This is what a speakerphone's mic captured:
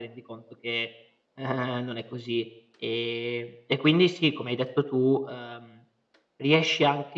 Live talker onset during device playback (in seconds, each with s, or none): none